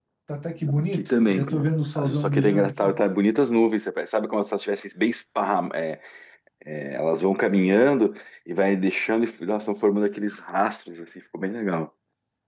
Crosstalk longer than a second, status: present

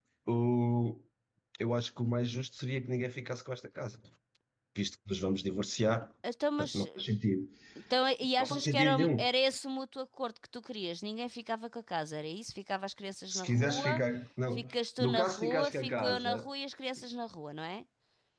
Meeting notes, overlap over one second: present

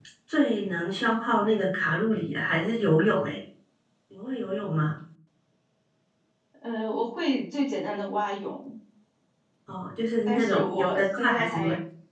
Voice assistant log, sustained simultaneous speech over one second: present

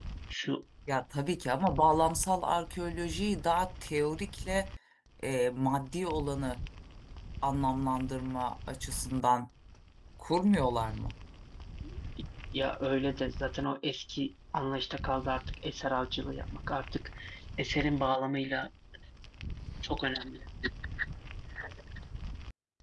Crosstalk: none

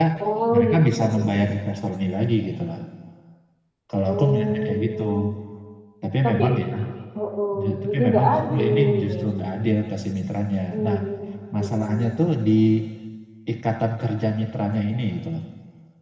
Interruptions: present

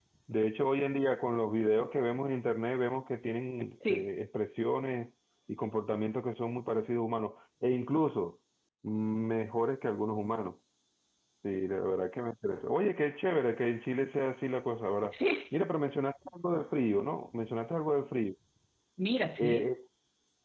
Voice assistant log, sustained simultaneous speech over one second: none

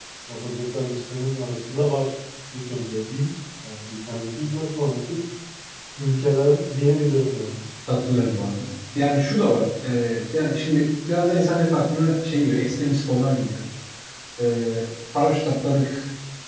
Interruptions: none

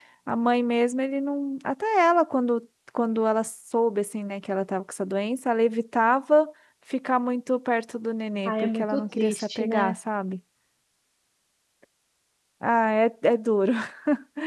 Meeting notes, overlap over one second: present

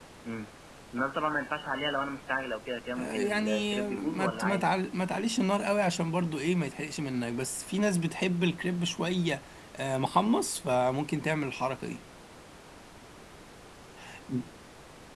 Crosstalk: present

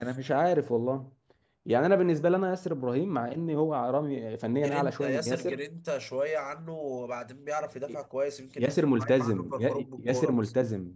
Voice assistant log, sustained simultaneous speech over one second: present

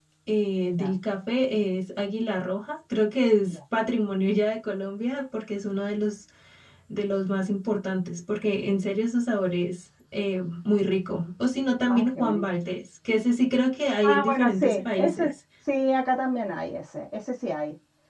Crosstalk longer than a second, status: present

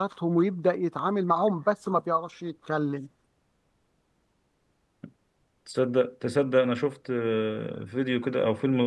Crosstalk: none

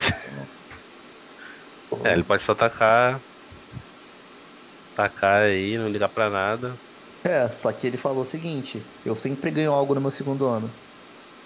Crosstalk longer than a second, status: none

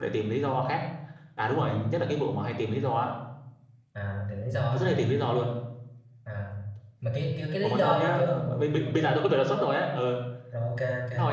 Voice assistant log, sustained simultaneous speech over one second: present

